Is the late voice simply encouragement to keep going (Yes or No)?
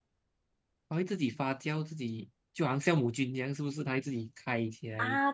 No